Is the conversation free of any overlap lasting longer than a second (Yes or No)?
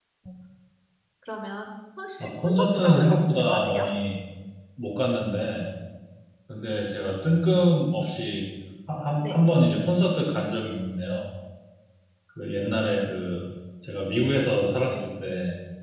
No